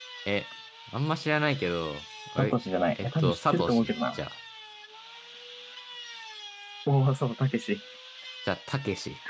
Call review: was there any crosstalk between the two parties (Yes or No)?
Yes